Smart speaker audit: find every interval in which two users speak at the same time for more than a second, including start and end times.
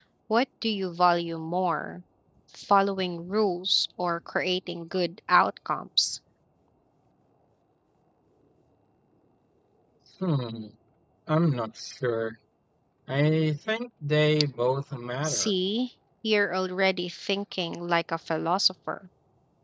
none

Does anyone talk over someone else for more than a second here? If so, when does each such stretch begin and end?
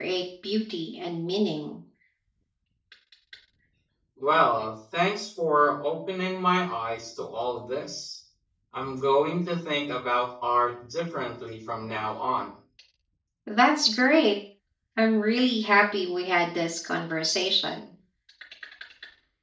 none

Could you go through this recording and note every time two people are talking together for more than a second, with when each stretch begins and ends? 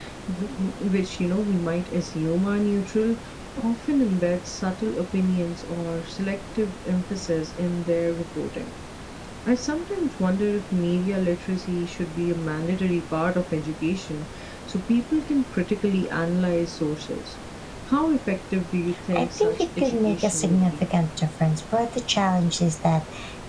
19.1-20.9

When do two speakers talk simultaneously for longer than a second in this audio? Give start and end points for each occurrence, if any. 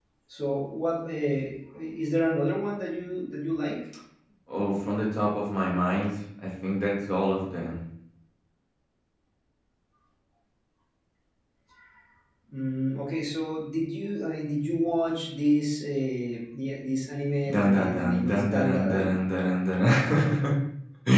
17.5-18.9

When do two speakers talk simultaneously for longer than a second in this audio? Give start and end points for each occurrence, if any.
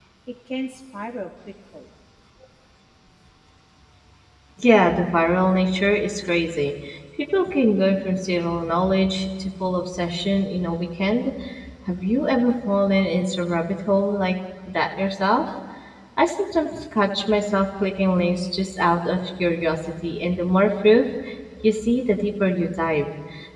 none

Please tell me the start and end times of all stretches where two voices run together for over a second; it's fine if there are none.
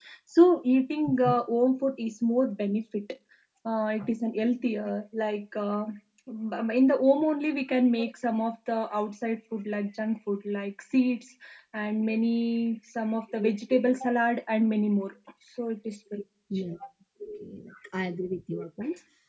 none

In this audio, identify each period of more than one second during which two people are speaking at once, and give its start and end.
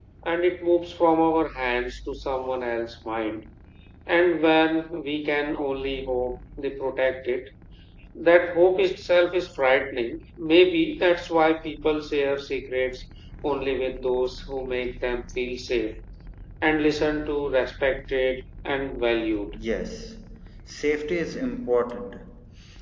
none

